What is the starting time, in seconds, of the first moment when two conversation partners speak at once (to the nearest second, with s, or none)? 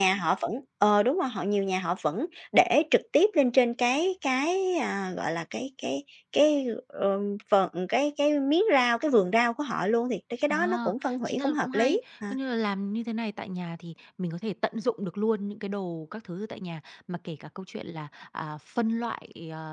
10 s